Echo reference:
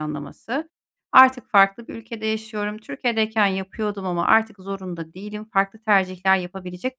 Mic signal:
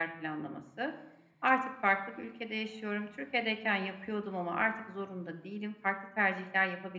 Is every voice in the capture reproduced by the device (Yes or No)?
Yes